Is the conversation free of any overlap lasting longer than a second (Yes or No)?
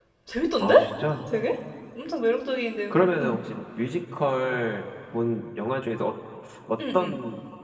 Yes